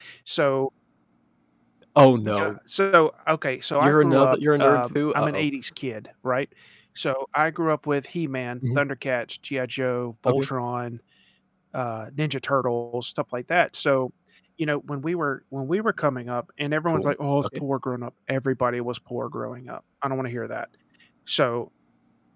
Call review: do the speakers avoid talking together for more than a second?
No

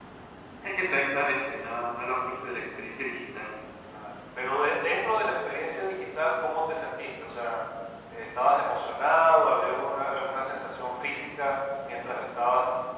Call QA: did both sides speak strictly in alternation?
Yes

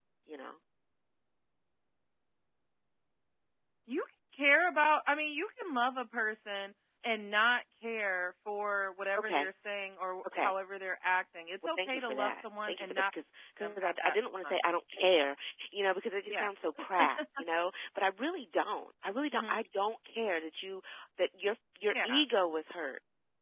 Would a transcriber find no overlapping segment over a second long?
No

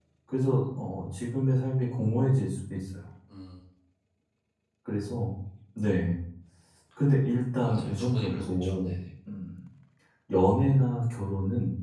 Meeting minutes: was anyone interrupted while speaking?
Yes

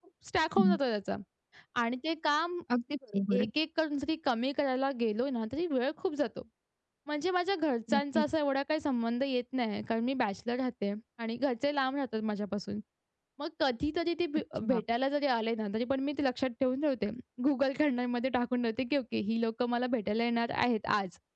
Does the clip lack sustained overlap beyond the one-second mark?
Yes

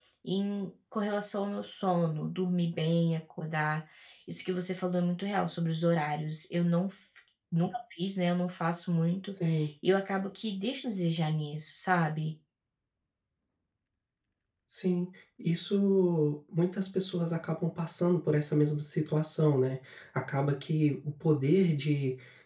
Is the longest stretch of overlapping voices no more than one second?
Yes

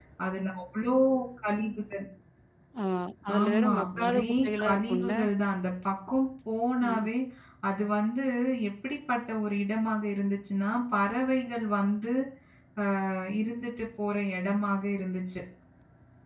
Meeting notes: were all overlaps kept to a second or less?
No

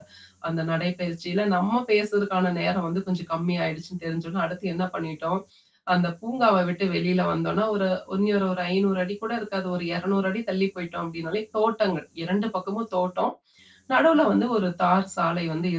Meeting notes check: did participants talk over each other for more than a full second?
No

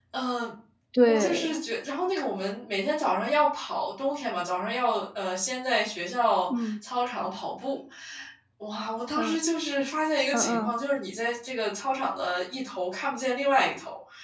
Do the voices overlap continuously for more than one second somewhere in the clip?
No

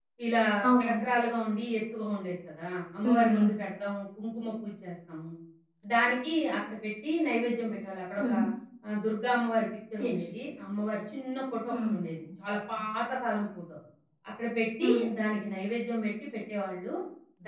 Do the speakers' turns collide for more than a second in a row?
No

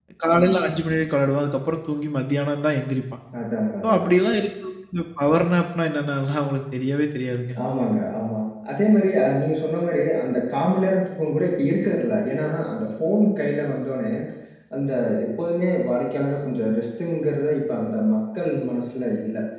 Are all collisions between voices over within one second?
Yes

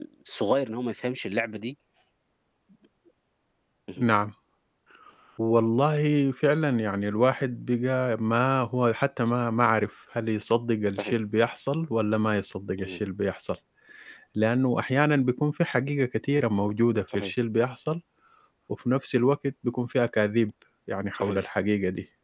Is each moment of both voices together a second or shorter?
Yes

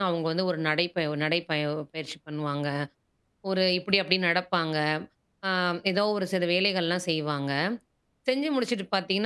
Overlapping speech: No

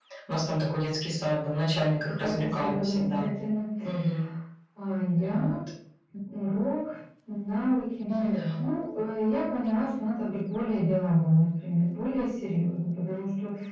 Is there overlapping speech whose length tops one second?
Yes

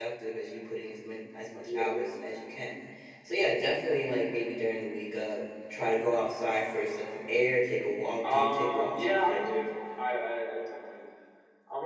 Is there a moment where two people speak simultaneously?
Yes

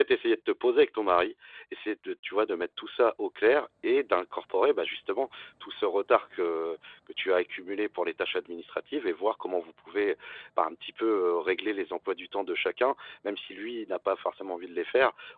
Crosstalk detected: No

